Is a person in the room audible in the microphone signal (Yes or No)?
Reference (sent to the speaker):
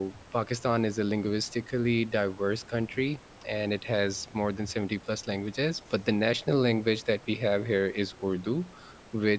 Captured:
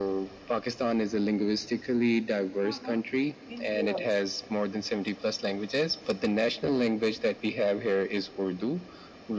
Yes